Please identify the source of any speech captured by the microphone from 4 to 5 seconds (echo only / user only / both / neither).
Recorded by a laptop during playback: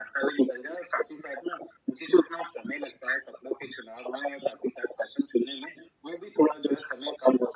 echo only